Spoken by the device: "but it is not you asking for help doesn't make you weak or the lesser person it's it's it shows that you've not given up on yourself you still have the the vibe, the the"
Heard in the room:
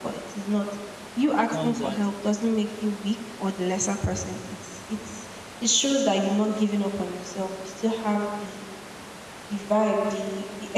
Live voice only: comes out

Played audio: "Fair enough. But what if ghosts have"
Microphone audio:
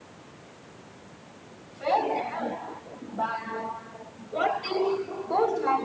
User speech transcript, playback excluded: none

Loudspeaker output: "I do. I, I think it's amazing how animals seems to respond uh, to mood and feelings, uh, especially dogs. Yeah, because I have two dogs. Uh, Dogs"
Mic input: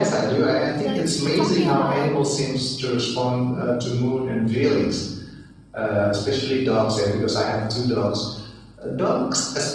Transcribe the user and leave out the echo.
like talking about

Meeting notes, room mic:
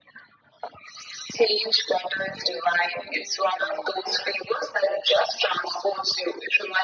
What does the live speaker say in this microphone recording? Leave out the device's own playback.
none

